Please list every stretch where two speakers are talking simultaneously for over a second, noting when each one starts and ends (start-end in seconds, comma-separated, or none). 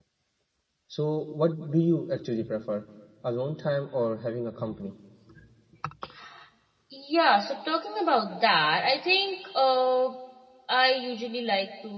none